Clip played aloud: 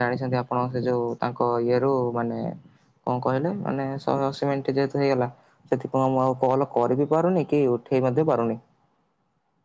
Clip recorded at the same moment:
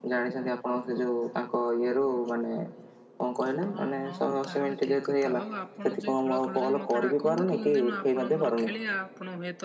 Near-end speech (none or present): present